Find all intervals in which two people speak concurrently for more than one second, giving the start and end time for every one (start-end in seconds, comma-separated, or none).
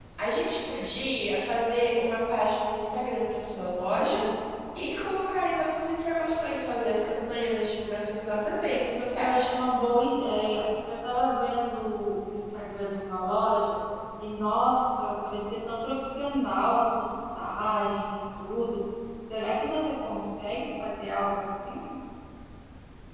none